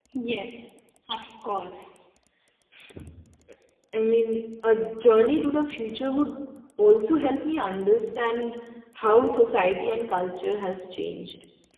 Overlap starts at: none

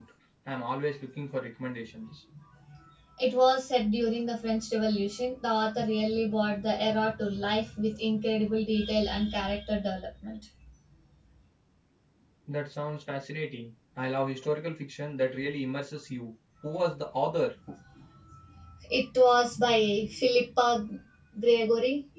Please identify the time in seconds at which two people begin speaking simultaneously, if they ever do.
none

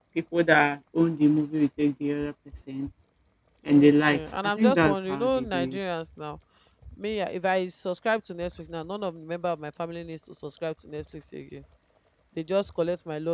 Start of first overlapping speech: 3.7 s

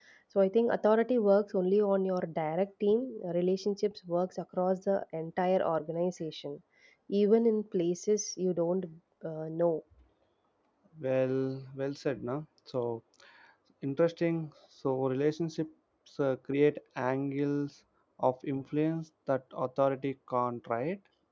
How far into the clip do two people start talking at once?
none

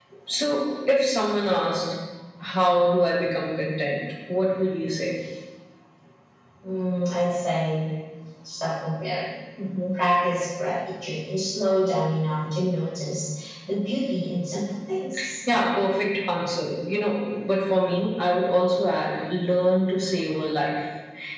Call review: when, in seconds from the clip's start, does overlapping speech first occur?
none

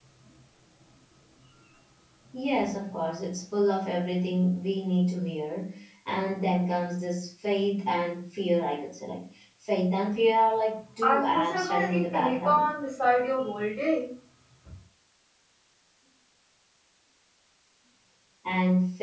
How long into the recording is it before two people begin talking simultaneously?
11.0 s

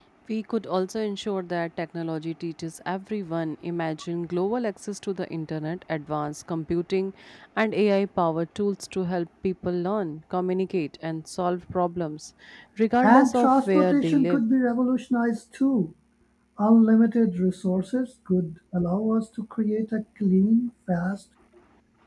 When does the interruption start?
13.0 s

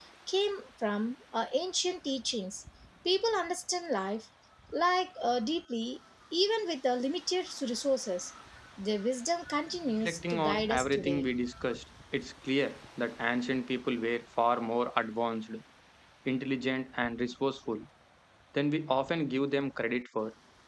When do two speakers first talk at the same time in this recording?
10.0 s

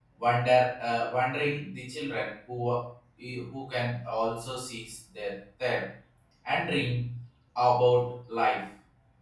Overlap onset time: none

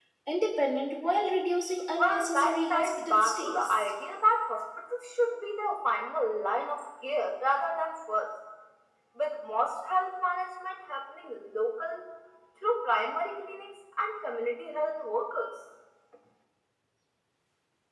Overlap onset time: 2.0 s

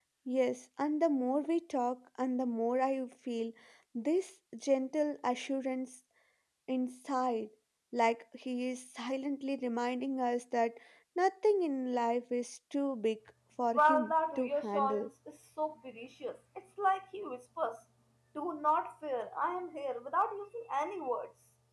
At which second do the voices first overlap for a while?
13.8 s

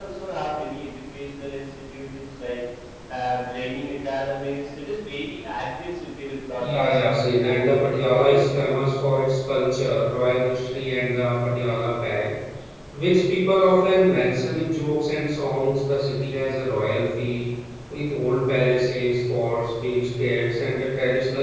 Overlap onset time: 6.6 s

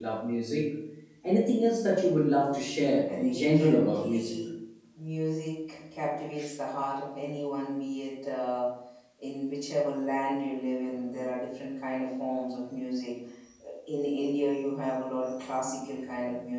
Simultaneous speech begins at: 3.1 s

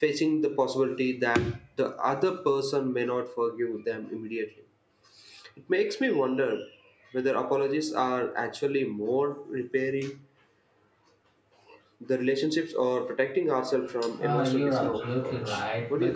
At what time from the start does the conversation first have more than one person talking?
14.2 s

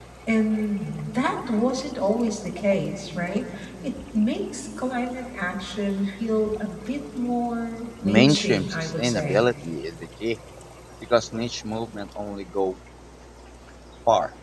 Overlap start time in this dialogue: 8.0 s

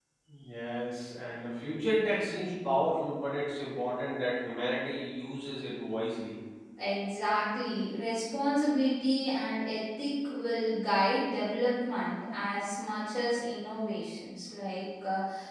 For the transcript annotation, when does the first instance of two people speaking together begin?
none

